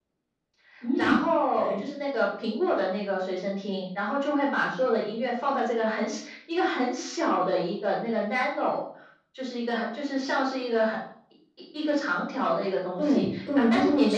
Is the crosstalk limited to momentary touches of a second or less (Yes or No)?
No